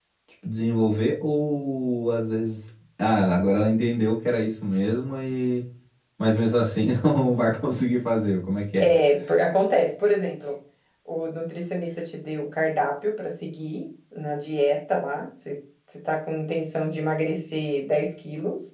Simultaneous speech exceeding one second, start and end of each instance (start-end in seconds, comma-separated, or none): none